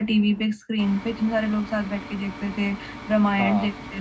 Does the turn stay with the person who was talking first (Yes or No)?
Yes